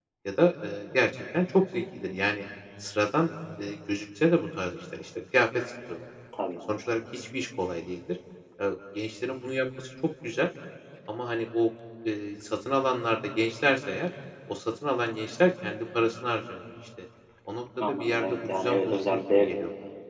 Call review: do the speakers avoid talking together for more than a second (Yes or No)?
No